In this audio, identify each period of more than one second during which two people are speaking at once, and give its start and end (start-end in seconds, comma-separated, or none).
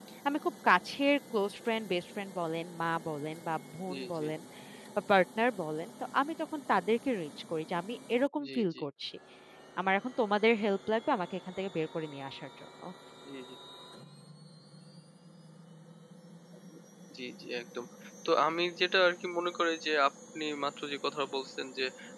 none